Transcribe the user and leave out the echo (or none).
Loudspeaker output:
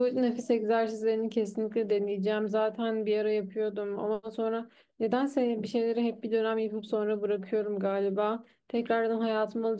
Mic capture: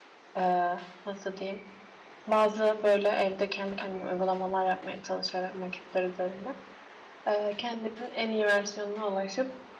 e, nasıl diyeyim bazı böyle evde kendi kendime uygulamalar yapmaya çalışarak maketler üzerinde ee, kendimin en iyi versiyonuna ulaşıp